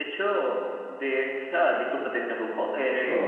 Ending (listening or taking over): listening